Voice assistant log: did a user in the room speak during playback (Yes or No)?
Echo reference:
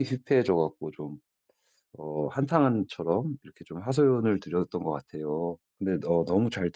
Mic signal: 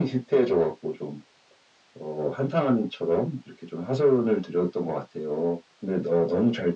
No